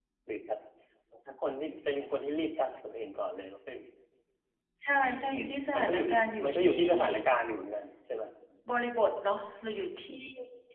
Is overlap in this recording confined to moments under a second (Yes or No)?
No